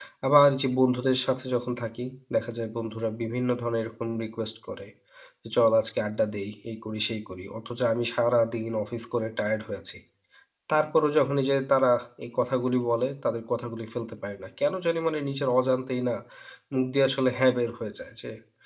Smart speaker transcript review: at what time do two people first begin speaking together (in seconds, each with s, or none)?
none